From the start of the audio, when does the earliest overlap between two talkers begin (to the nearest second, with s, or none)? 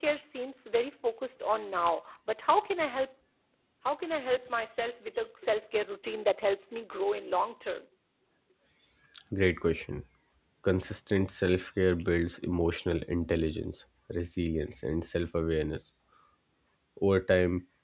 none